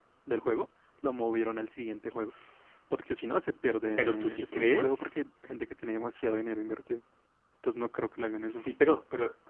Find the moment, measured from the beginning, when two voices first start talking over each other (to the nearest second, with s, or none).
4 s